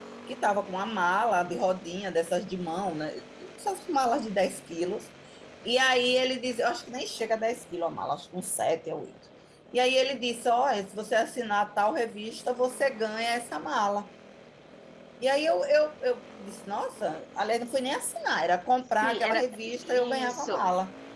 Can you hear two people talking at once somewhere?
Yes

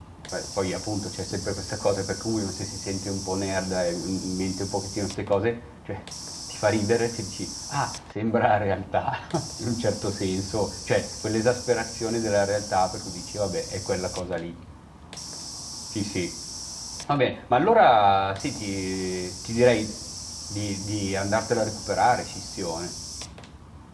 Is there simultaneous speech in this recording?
No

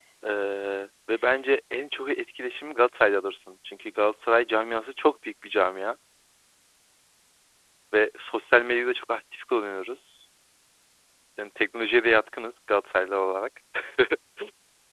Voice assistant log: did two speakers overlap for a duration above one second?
No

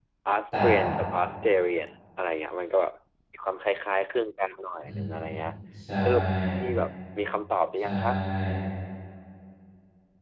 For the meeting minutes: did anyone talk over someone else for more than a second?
No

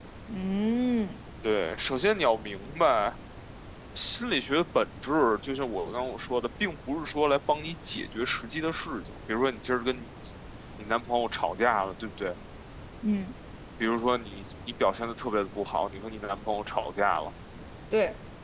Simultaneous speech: No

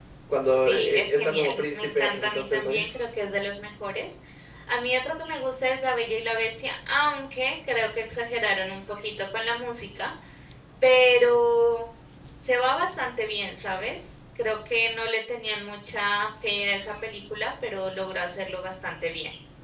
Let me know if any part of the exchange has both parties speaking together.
Yes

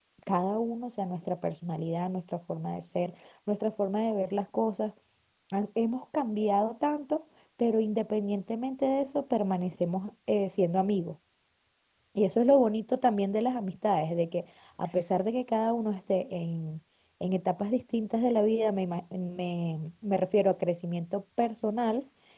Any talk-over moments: No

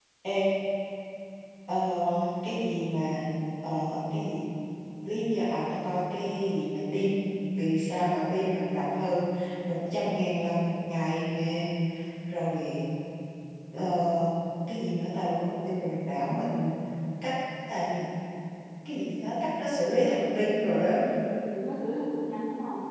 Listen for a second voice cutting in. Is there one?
No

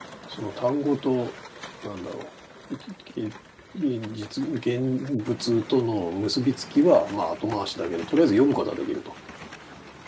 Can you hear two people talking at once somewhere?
No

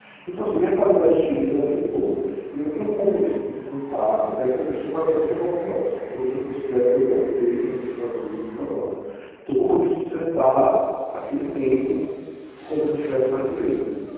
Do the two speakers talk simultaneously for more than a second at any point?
No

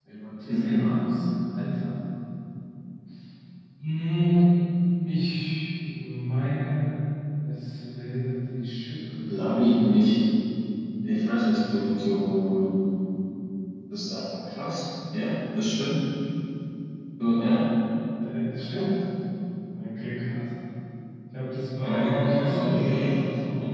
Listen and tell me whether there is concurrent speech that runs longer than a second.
Yes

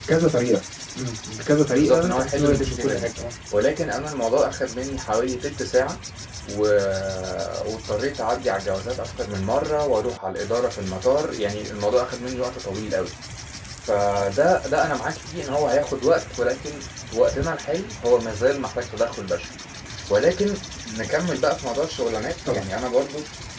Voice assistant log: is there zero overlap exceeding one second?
No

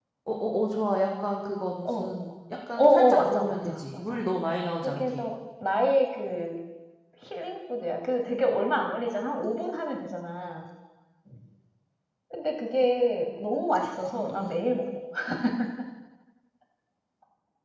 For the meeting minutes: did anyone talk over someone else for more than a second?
Yes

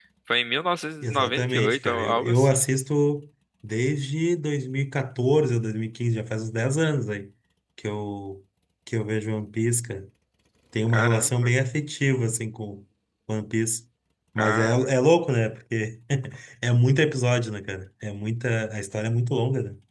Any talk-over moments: Yes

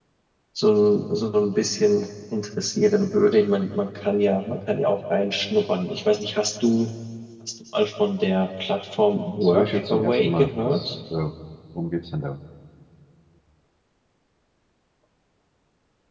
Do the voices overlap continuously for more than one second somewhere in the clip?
Yes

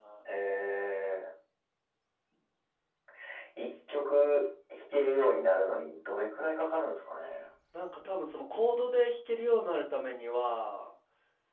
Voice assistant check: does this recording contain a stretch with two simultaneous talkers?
No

